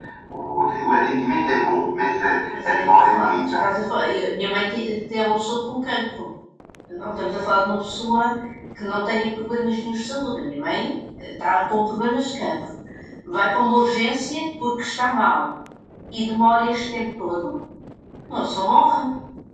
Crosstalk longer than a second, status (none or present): present